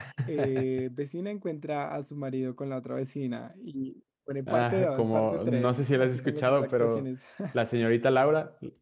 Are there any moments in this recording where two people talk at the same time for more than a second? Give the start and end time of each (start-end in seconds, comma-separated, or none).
4.5-7.0